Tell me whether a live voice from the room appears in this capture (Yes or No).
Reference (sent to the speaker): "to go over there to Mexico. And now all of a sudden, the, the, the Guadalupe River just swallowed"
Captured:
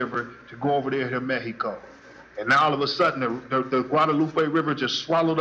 No